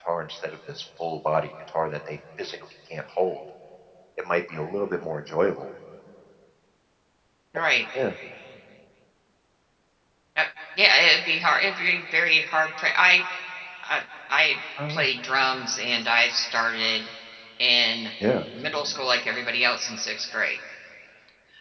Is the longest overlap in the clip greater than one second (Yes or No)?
No